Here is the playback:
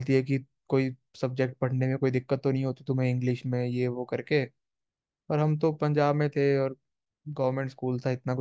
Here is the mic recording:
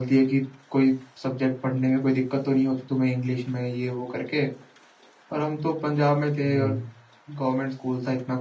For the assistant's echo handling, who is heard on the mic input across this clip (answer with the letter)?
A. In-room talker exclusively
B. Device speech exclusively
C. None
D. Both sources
D